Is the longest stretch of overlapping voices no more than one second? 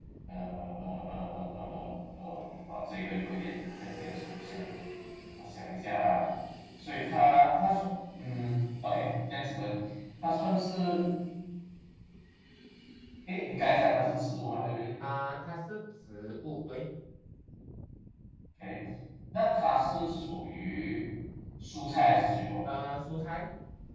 Yes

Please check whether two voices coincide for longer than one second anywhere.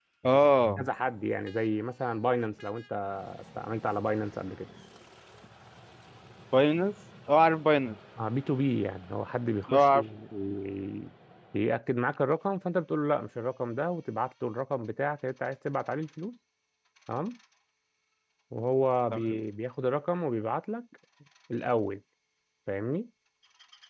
No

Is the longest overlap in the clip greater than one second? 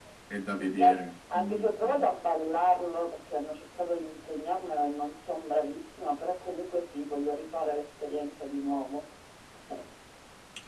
Yes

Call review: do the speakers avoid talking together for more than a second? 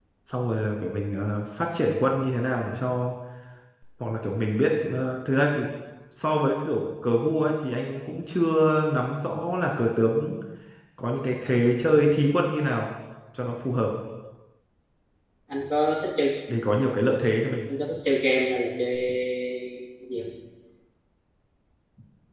Yes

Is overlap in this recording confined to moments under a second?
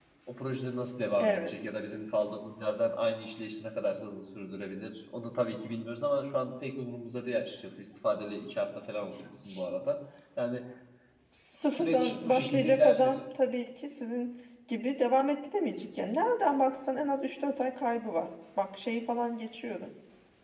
No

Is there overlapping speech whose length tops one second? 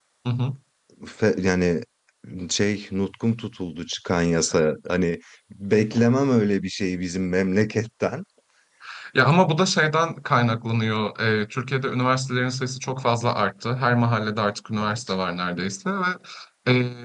No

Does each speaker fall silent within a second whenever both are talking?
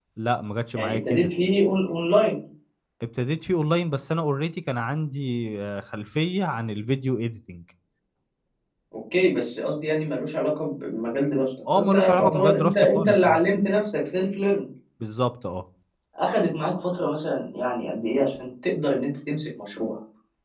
No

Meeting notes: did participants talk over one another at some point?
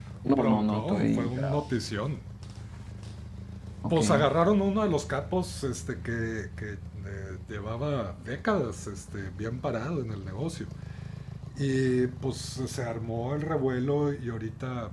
Yes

